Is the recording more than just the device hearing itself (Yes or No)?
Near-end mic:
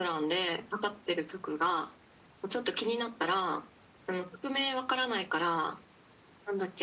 No